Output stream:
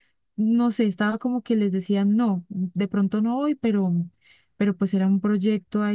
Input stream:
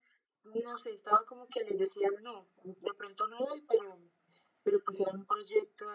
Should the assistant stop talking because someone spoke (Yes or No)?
No